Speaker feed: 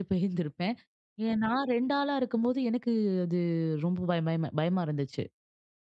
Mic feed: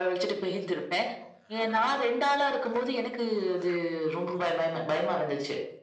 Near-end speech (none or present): none